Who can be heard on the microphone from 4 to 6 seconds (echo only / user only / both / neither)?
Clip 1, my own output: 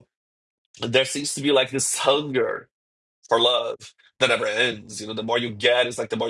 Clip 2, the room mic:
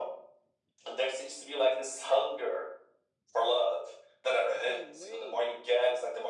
both